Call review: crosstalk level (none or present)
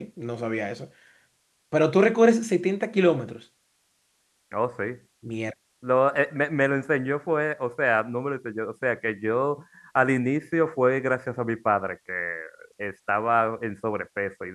none